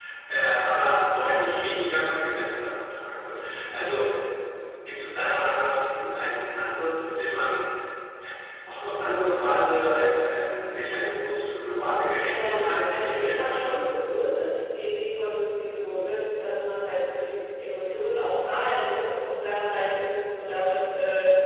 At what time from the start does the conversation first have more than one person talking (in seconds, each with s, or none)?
12.3 s